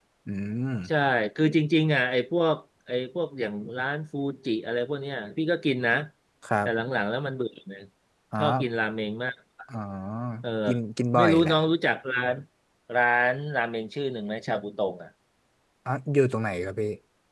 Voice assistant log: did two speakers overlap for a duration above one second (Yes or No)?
No